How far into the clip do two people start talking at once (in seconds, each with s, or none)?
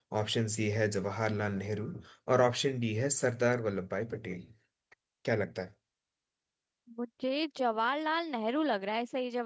none